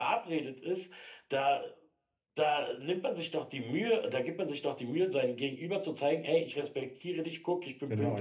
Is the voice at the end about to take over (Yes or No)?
Yes